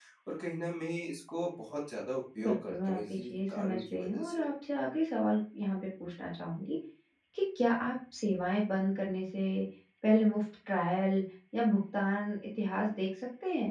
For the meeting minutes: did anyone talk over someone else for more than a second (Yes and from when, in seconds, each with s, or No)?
Yes, from 2.4 s